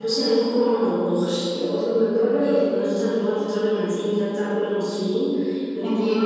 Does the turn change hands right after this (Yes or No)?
No